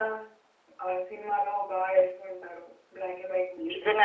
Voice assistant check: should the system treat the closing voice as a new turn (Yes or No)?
Yes